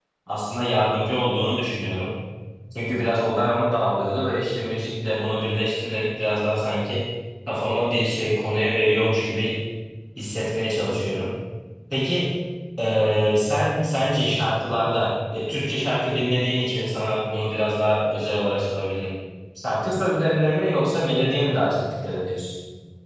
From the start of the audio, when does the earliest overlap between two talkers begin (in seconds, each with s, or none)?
none